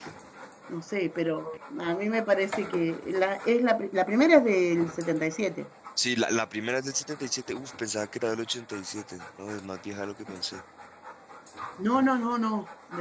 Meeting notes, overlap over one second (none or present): none